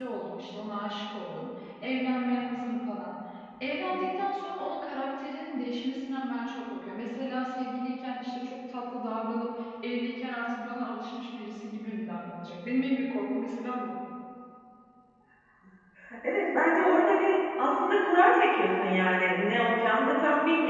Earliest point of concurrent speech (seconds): none

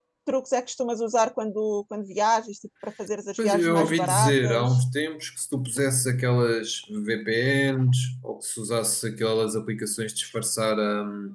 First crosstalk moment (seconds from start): 3.4 s

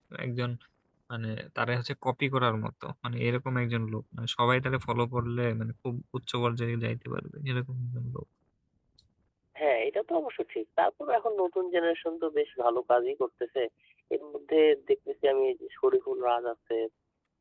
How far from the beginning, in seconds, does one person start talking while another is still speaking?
none

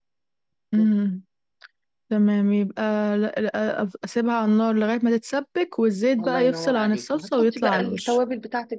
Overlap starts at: 6.2 s

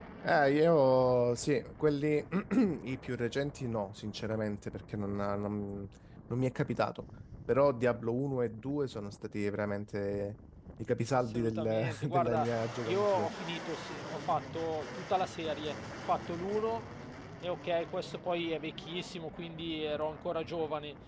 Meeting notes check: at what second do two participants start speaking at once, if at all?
11.1 s

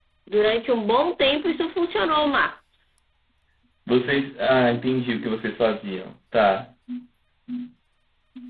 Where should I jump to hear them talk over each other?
none

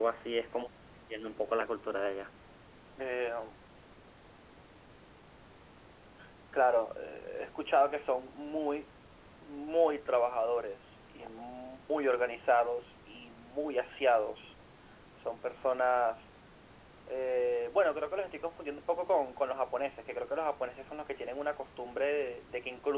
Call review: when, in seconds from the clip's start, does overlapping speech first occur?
none

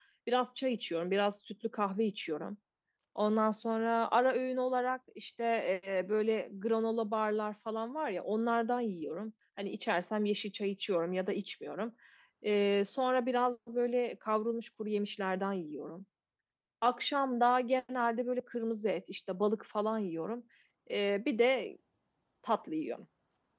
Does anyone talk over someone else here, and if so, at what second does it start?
none

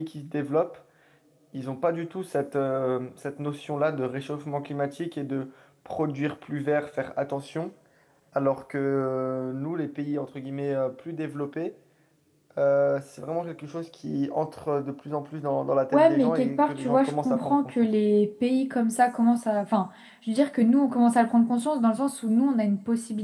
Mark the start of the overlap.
15.9 s

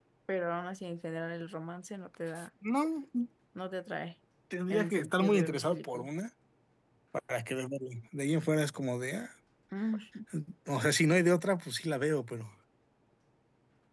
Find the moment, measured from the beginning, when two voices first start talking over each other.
4.7 s

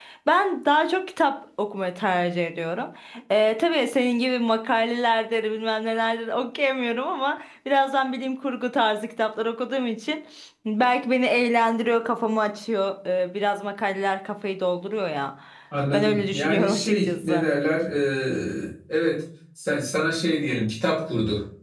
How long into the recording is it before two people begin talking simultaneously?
15.9 s

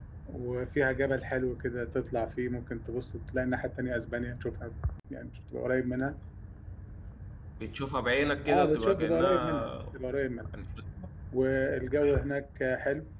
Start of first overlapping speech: 8.5 s

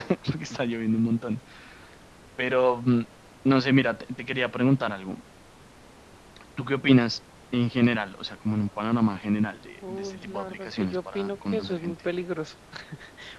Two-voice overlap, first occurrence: 9.8 s

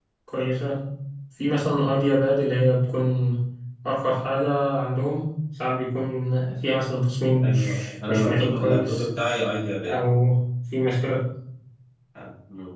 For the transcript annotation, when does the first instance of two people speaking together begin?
7.3 s

